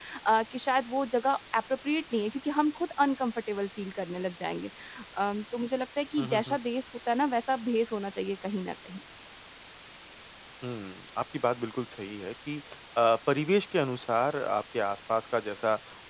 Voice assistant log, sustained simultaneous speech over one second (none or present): none